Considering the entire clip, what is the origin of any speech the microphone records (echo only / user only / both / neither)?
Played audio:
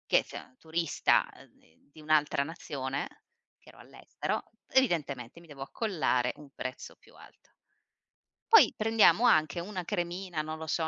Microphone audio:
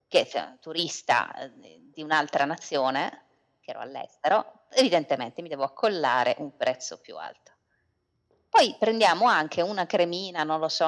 echo only